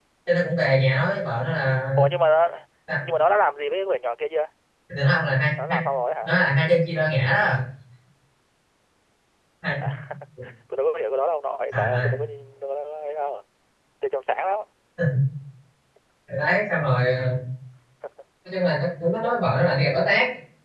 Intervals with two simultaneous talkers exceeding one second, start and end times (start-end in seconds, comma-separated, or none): none